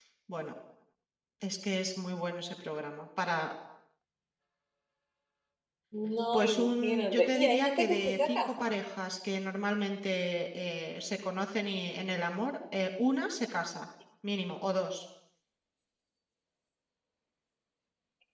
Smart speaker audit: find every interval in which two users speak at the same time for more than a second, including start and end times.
6.3-8.7

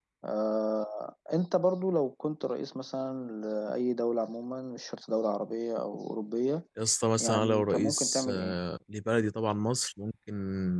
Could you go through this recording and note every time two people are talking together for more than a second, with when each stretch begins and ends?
7.2-8.6

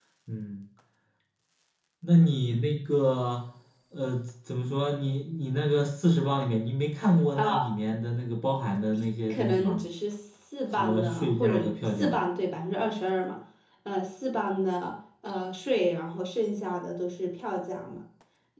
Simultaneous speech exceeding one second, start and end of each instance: 10.7-12.2

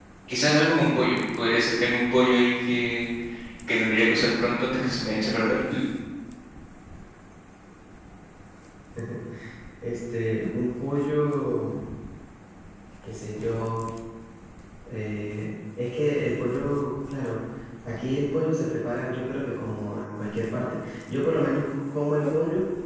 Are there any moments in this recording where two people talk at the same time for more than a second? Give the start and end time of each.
none

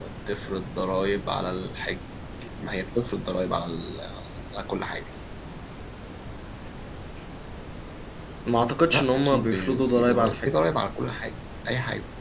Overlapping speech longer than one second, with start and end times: 8.9-10.5

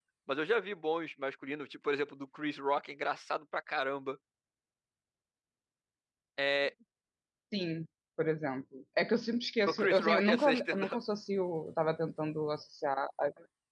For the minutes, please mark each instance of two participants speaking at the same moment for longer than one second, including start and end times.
9.7-11.0

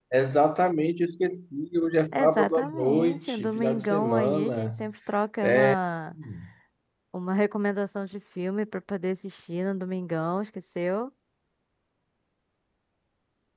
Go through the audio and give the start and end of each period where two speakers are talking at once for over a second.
2.1-4.8

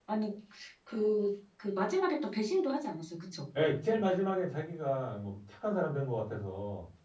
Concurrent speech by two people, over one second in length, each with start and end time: none

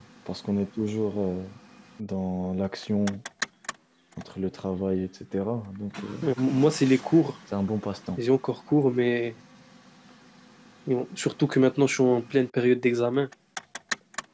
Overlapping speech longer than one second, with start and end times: none

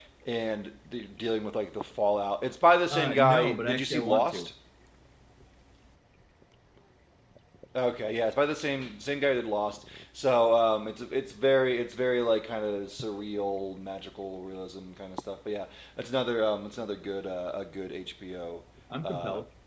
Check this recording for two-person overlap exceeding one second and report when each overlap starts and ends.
2.9-4.5

